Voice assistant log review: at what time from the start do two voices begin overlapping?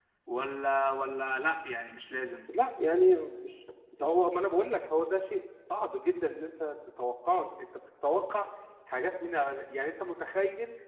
none

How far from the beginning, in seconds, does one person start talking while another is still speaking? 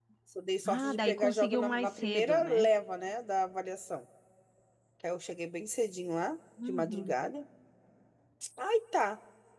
0.7 s

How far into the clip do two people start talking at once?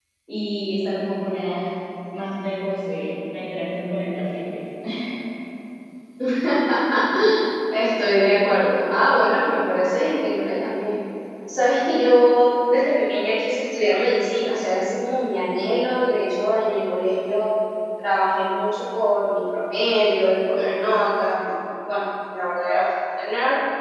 none

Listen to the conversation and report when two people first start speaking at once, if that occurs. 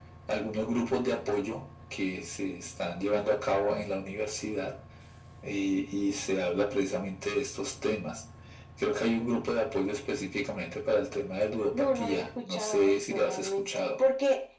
11.7 s

